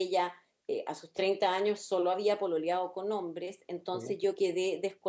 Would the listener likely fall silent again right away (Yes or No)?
Yes